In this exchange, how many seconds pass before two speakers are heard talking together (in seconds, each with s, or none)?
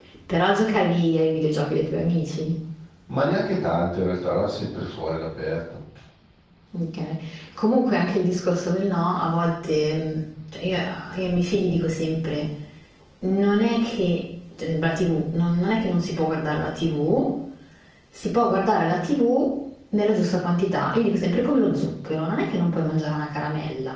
none